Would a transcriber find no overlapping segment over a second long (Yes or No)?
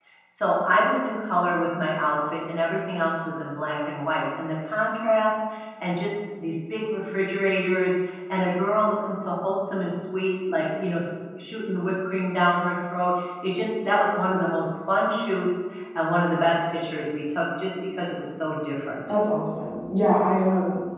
Yes